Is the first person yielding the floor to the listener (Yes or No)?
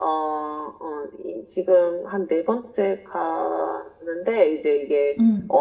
No